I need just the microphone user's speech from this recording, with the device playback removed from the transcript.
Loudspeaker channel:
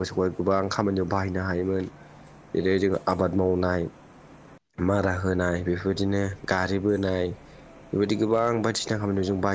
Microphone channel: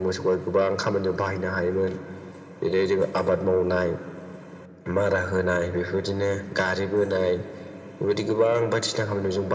none

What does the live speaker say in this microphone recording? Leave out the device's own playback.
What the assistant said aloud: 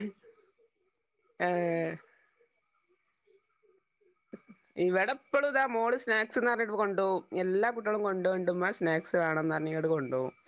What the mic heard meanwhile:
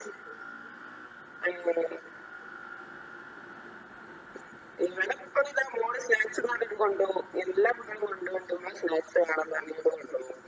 none

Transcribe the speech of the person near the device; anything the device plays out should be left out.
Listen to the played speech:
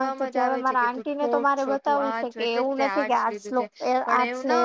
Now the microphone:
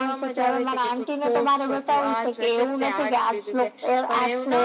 none

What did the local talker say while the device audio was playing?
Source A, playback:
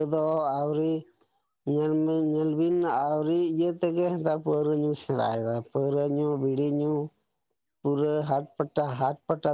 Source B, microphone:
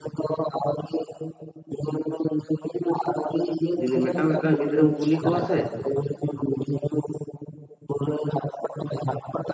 ᱡᱩᱫᱤ ᱢᱤᱫᱴᱟᱝ ᱢᱤᱫᱴᱟᱝ ᱜᱤᱫᱽᱨᱟᱹᱢ ᱠᱩᱞᱤ ᱠᱚᱣᱟ ᱥᱮ

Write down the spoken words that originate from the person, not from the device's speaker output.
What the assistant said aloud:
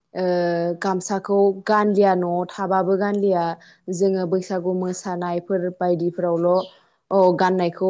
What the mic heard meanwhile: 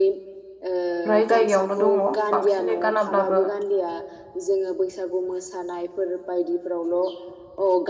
फ्राय जायगायावनो दङ बांसिनै गानाब्लाबो

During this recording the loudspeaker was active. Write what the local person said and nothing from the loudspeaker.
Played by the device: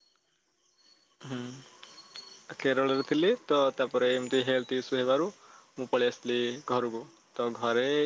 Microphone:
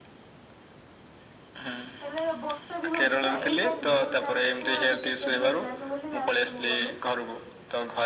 ହେଲେ ବର୍ଷା ବି ହଉଛି ନା, ଏଇ ଟାଇମ୍ ଜୁନ ଲାଷ୍ଟ କୁ ଆମେ ଟିକେଟ ମିଳିଲାନି ବୋଲି ଲାଷ୍ଟ କୁ ଗଲୁ,

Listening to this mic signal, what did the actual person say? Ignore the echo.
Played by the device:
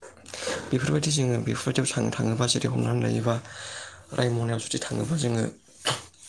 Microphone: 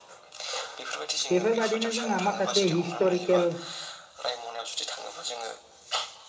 बेफोरबायदिनो जोंहा माखासे हिस्ट'रिकेल

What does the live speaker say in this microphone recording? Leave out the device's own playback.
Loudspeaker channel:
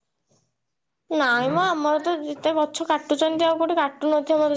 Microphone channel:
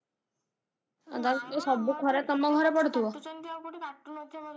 ଆଉ ତାହେଲେ ସବୁ ଖରା ତମ ଘରେ ପଡୁଥିବ।

